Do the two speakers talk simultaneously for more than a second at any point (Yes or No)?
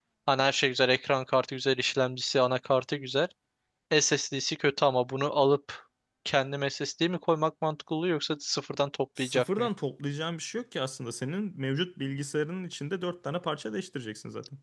No